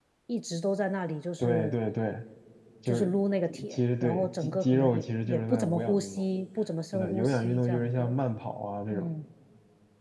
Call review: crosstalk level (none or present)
present